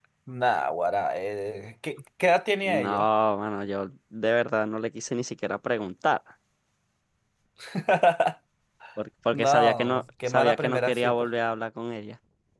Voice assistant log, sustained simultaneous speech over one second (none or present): present